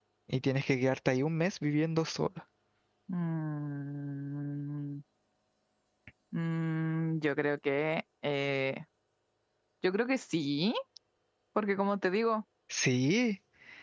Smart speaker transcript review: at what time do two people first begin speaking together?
none

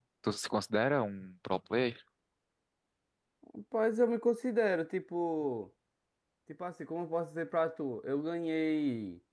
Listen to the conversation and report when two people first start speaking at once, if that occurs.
none

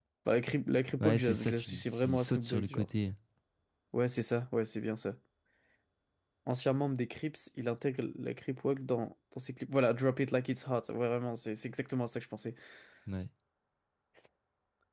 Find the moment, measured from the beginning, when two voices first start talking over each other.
1 s

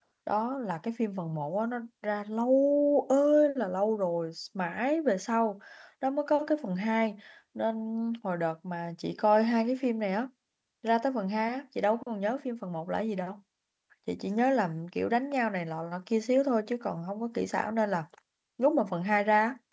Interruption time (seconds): none

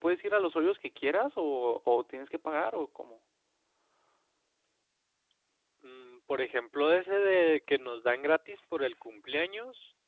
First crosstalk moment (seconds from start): none

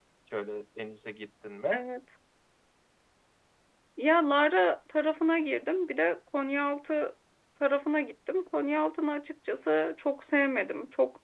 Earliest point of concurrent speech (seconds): none

